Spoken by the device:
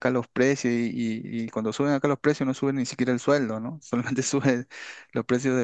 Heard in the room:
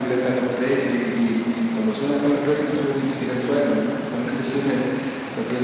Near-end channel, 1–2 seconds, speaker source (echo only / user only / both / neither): echo only